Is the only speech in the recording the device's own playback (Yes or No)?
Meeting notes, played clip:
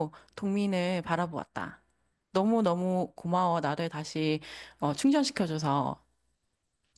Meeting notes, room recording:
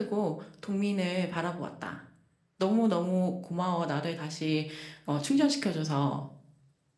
Yes